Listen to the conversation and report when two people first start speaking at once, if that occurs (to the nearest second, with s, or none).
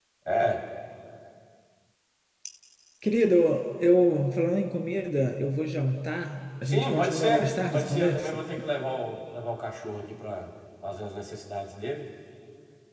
7 s